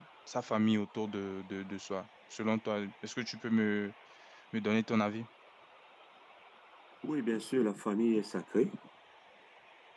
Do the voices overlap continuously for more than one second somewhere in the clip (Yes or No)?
No